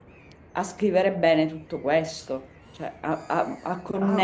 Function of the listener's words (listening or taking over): taking over